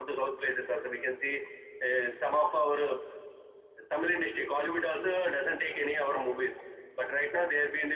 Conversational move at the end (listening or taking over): listening